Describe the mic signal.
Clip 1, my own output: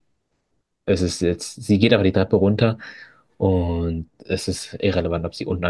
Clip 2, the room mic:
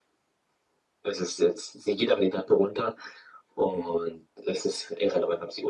echo only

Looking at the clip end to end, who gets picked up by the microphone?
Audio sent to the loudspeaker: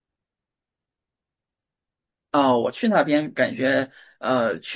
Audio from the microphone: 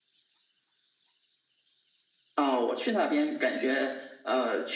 echo only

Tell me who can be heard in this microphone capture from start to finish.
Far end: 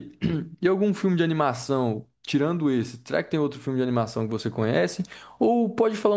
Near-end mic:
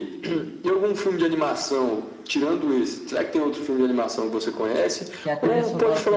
both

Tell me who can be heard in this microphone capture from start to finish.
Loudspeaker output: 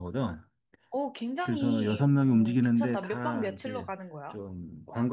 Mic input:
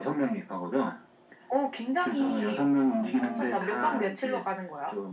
both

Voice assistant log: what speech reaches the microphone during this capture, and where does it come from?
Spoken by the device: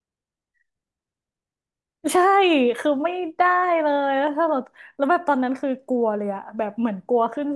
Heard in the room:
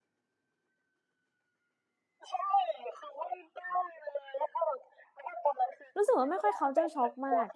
both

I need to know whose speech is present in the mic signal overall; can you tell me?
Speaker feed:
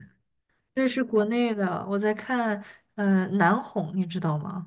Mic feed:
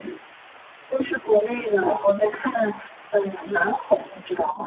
echo only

